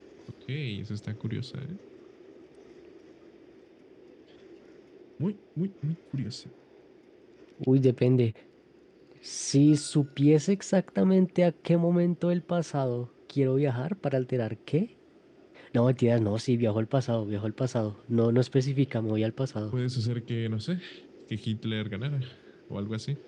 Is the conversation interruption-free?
Yes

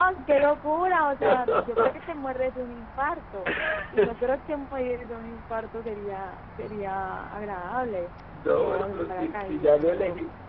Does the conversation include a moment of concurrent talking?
Yes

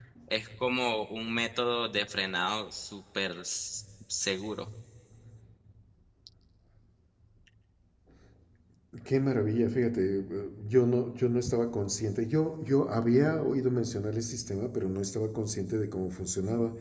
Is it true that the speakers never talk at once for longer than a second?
Yes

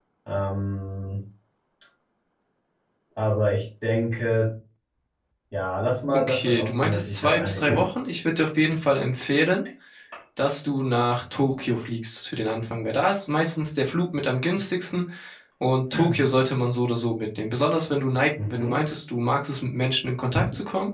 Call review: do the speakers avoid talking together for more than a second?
No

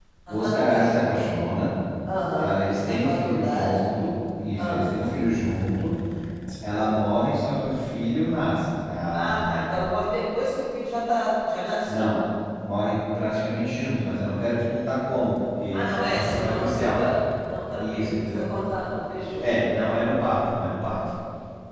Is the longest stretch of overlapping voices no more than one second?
No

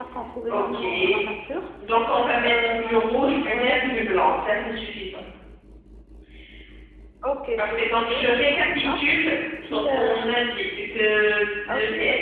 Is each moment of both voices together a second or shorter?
No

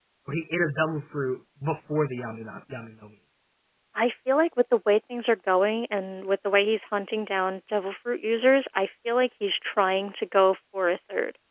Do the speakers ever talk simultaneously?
No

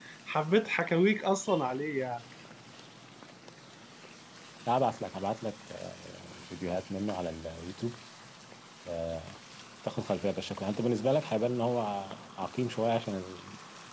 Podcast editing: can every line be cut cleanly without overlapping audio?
Yes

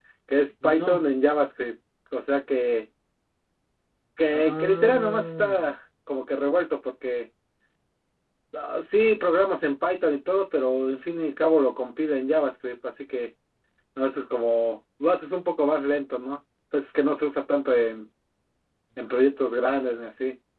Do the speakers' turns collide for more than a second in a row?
Yes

